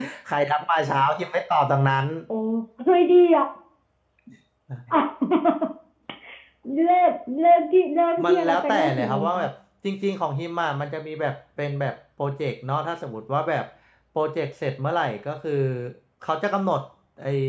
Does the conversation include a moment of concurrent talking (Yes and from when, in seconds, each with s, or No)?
Yes, from 8.2 s